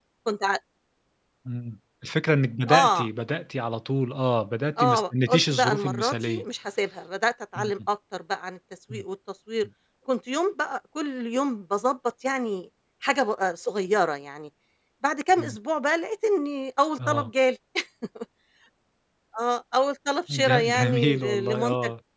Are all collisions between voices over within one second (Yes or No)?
No